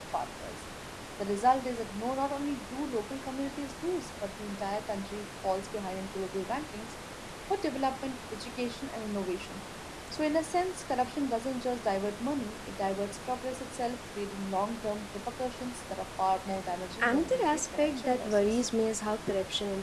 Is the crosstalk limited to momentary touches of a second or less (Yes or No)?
No